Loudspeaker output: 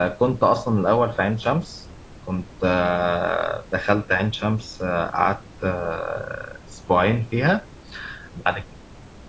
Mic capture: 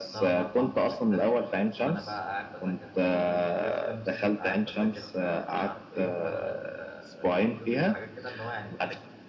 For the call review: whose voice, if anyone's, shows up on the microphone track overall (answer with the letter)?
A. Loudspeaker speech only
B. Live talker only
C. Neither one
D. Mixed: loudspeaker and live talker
D